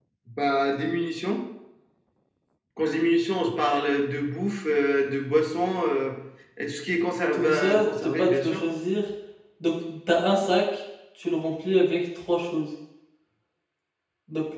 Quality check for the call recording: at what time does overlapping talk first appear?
7.3 s

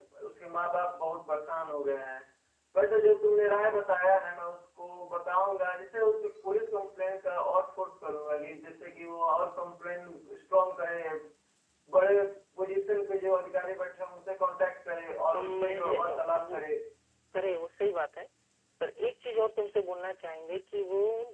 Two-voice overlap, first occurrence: 15.3 s

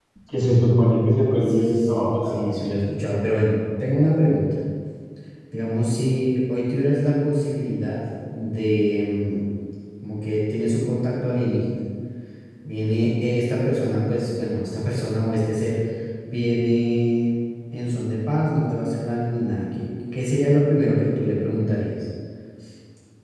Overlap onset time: 1.5 s

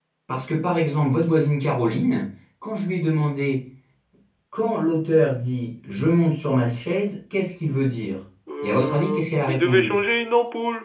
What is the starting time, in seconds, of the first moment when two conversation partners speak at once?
8.5 s

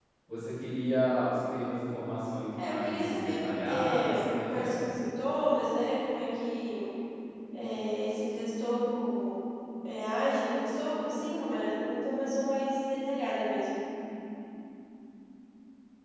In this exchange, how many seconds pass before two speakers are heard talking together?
2.5 s

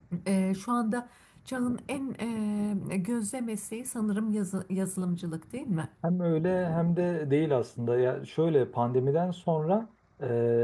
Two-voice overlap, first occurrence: none

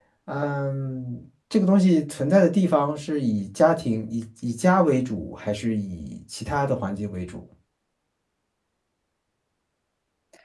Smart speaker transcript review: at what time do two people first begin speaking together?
none

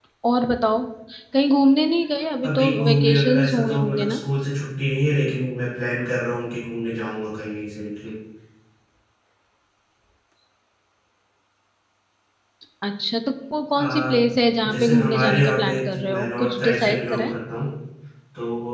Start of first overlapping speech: 2.4 s

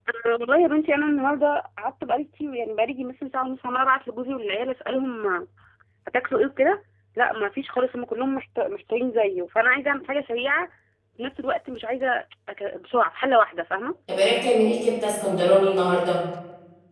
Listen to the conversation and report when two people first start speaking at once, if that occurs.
none

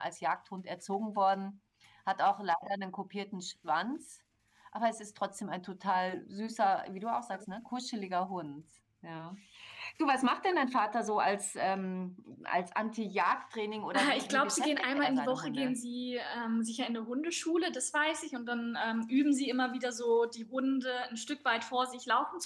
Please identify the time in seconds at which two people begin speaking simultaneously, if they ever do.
13.9 s

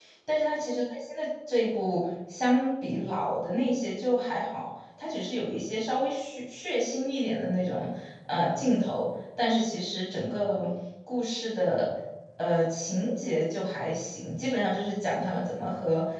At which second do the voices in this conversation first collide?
none

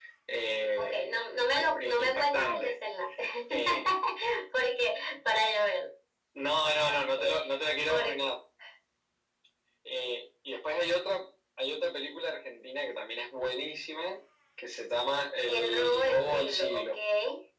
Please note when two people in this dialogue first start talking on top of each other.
0.8 s

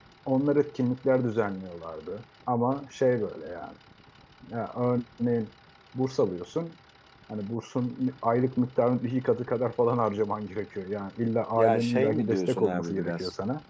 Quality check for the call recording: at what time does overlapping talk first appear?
11.6 s

